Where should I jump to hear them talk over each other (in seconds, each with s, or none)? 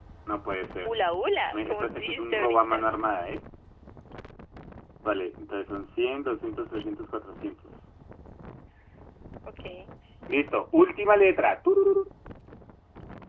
1.5 s